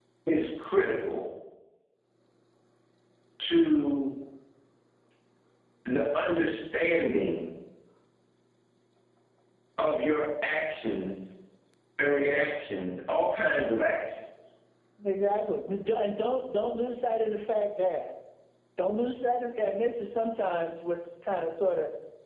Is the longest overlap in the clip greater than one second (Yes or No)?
No